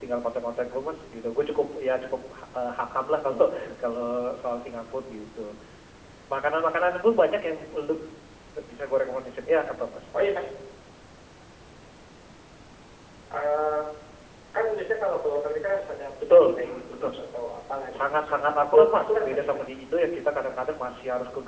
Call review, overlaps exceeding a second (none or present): present